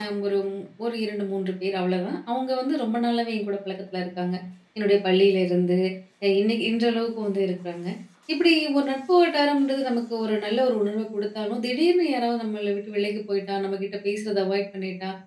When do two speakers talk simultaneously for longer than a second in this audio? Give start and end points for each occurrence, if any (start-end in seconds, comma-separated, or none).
none